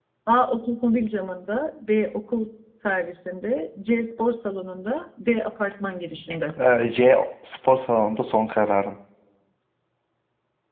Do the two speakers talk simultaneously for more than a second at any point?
No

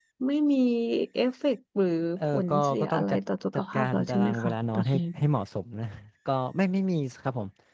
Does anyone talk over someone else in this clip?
Yes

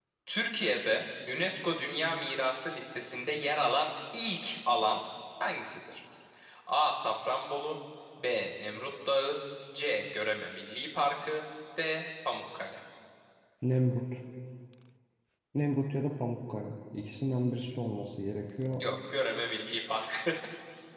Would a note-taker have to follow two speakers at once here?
No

